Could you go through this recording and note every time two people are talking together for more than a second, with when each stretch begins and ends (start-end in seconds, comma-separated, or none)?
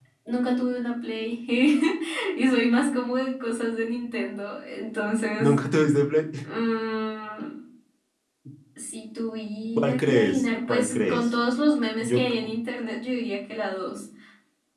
9.8-11.3